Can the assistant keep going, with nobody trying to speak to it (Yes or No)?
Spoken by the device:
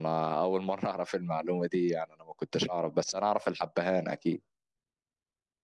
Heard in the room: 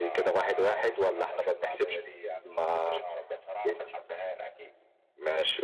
No